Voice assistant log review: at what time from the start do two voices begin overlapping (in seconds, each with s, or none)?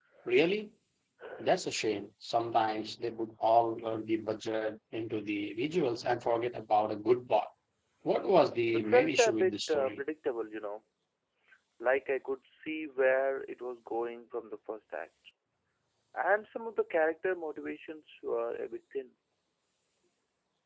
8.7 s